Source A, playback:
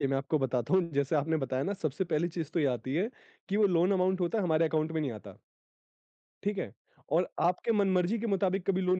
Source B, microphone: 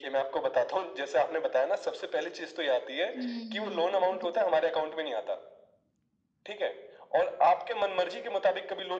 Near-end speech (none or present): present